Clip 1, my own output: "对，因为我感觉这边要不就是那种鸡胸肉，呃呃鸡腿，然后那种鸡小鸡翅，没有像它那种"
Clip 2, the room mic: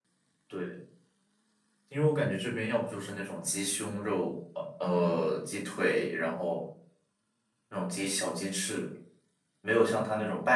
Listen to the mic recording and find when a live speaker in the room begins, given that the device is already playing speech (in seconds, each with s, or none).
none